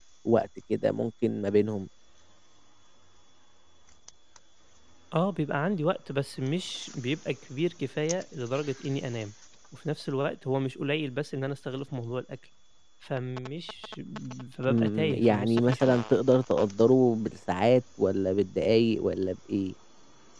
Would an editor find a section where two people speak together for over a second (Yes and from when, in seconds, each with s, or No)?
Yes, from 14.7 s